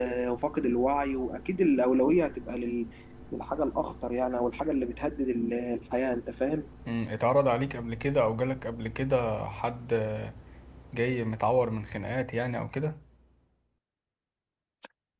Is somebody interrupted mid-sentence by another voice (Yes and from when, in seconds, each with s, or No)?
No